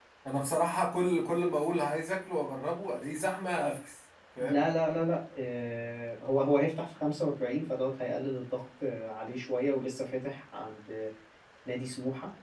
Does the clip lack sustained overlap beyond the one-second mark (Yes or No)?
Yes